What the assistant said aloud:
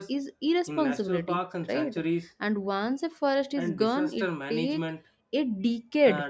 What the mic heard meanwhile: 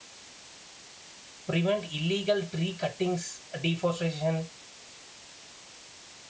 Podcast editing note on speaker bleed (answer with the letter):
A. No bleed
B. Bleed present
A